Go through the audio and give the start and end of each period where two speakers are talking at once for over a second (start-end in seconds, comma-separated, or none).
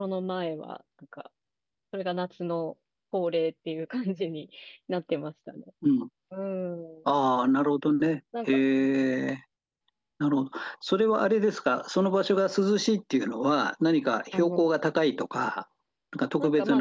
none